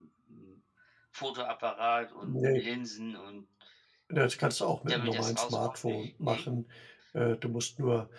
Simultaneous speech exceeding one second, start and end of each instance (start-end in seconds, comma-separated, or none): 4.9-6.5